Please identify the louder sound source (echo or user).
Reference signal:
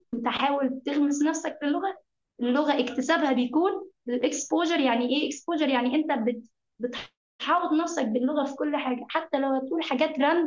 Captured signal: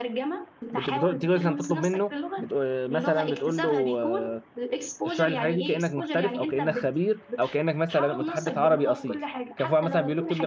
user